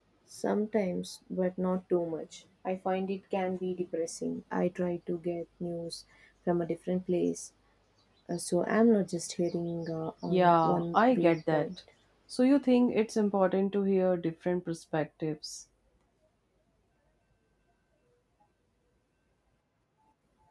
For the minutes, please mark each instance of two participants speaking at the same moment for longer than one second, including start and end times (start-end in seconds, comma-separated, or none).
10.3-11.7